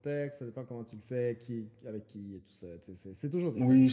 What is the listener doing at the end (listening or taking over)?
taking over